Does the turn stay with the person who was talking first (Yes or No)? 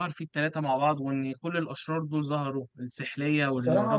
No